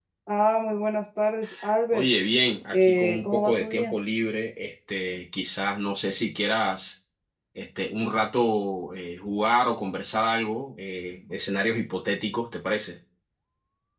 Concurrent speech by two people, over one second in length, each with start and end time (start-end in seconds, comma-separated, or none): 2.7-3.9